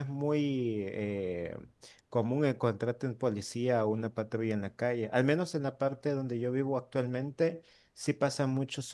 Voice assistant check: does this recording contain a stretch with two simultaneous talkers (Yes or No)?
No